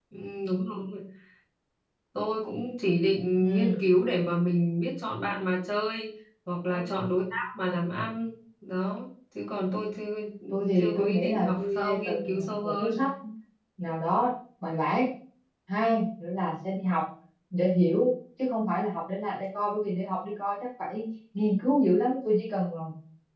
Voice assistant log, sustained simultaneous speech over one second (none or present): present